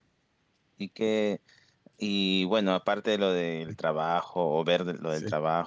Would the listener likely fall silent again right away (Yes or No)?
Yes